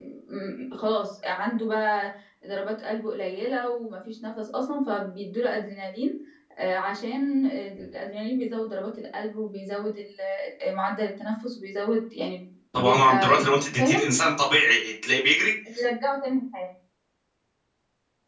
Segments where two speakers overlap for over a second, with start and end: 12.7-14.0

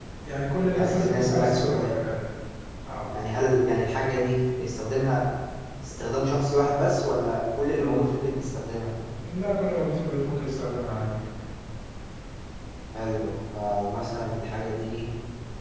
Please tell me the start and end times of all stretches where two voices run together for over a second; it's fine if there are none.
0.7-2.2

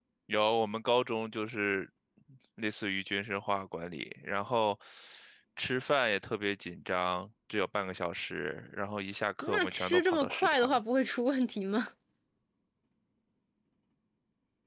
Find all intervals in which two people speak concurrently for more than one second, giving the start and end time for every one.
9.4-10.8

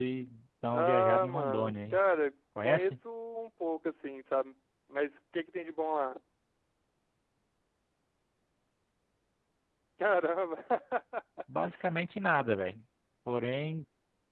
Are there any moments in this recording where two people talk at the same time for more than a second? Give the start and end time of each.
0.7-2.0

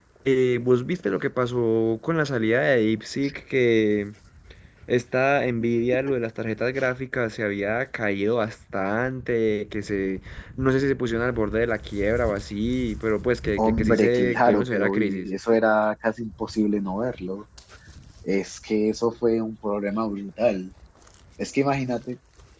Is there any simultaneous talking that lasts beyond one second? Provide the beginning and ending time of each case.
13.6-15.3

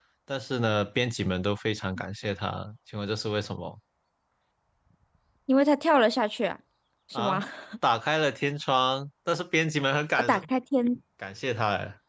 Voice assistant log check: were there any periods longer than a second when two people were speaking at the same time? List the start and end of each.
none

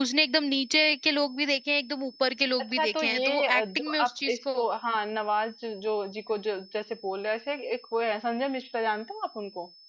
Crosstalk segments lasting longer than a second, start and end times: 2.8-4.4

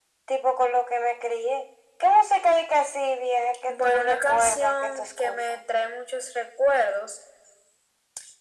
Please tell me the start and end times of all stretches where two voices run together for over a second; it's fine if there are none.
3.7-5.6

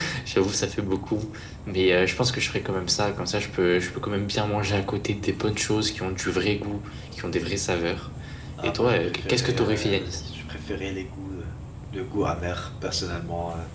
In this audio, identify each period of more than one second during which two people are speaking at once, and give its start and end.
8.6-10.2

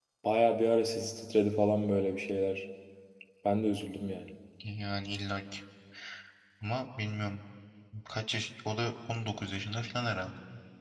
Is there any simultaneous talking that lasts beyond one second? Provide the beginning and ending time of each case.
none

